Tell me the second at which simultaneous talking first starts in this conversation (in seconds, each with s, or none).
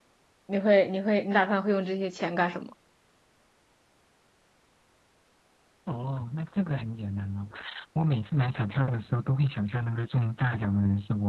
none